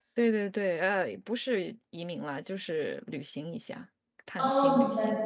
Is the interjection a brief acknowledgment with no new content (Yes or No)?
No